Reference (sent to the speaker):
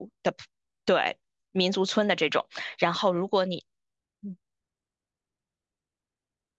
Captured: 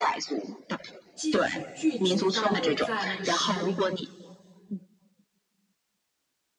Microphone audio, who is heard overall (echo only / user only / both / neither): both